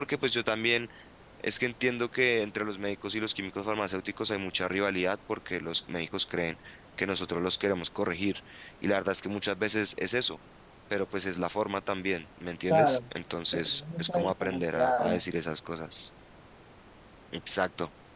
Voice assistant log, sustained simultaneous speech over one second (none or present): present